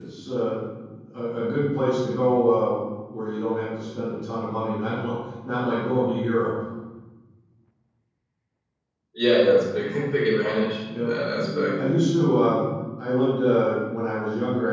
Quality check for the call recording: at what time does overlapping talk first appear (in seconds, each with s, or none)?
10.3 s